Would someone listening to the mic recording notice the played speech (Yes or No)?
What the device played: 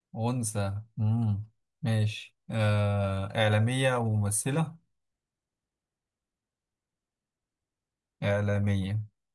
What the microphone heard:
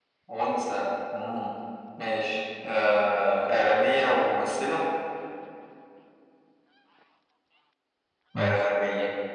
Yes